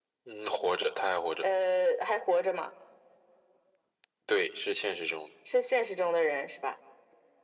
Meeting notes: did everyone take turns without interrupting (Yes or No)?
Yes